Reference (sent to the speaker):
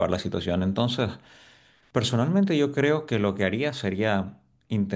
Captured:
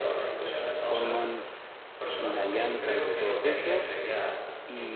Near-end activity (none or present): present